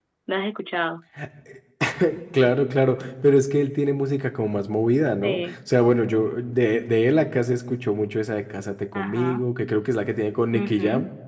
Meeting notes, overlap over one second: none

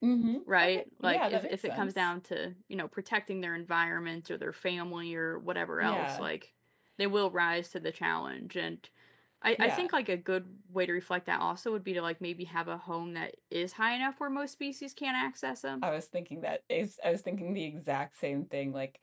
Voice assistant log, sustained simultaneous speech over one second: present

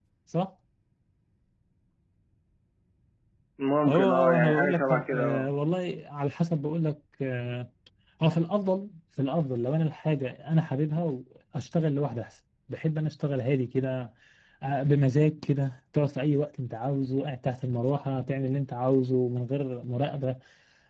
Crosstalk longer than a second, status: present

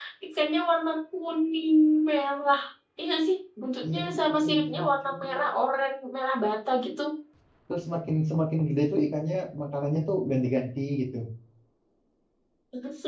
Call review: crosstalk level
present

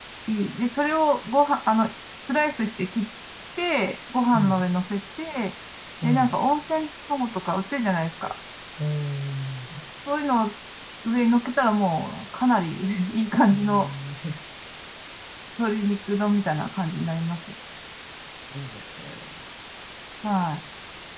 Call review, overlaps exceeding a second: none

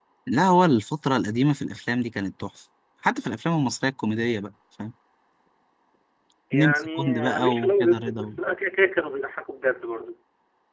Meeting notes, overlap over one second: present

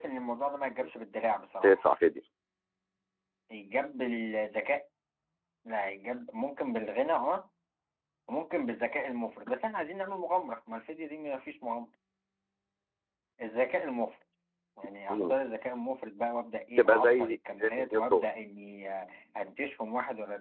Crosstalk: present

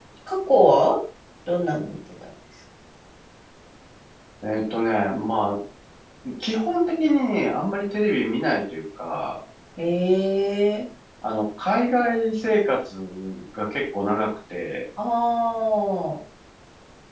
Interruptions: none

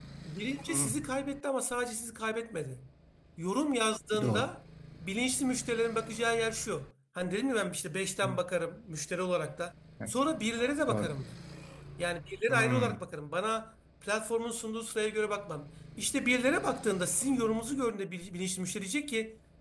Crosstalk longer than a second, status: none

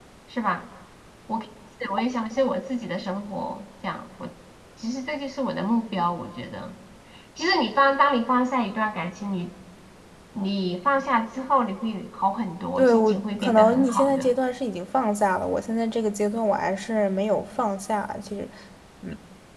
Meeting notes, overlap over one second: present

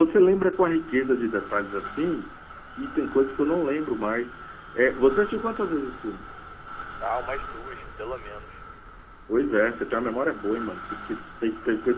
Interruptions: none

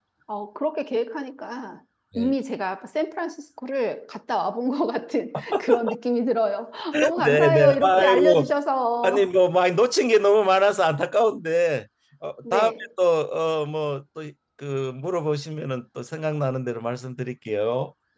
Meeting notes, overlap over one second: present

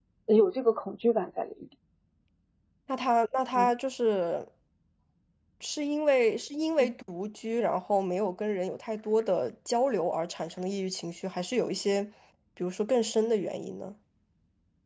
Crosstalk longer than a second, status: none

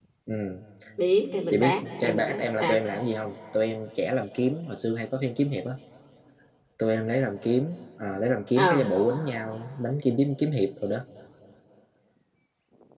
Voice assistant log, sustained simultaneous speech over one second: present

